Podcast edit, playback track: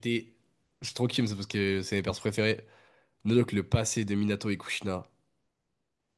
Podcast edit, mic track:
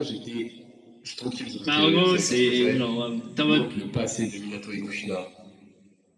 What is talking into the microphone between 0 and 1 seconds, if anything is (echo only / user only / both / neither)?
echo only